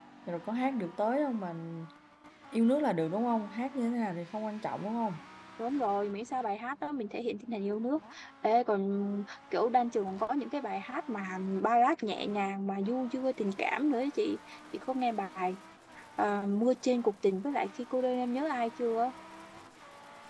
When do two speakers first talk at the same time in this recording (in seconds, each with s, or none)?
none